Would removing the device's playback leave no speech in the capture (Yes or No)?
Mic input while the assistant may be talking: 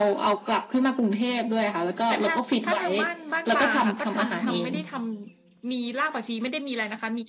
No